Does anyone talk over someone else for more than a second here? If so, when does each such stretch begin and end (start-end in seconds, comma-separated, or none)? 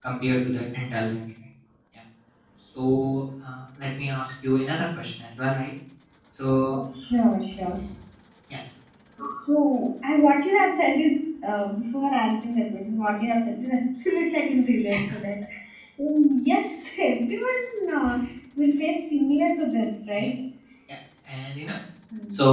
none